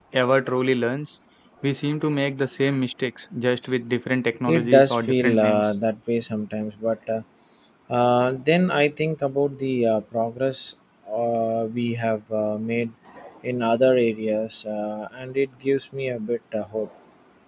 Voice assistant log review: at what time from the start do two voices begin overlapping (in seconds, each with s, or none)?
4.5 s